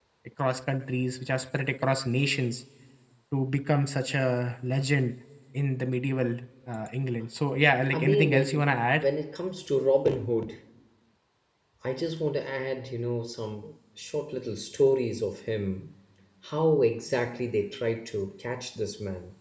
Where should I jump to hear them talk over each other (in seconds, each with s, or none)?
7.9 s